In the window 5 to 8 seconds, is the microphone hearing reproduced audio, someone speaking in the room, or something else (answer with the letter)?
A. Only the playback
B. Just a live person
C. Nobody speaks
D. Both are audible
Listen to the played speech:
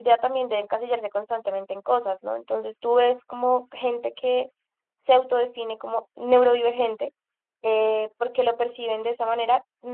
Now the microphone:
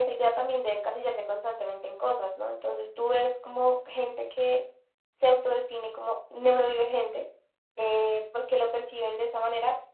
A